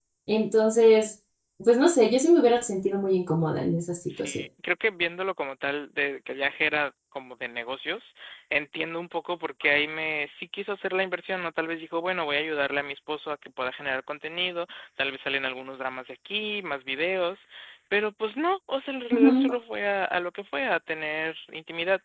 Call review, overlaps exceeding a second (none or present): none